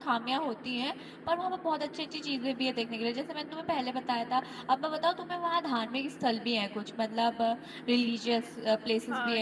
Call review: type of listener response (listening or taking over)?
taking over